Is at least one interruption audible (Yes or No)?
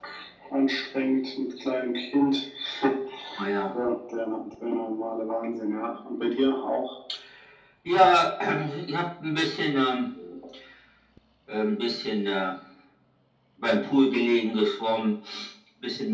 No